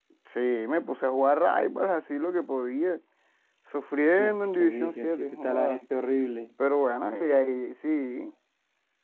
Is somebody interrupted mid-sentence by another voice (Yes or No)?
Yes